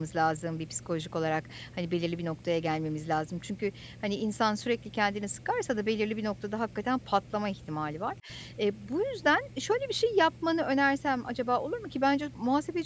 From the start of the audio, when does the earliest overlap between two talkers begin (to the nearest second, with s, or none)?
none